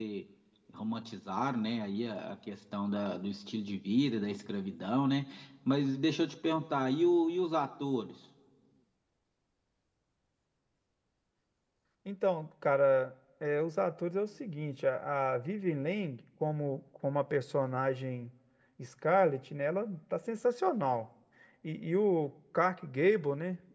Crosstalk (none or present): none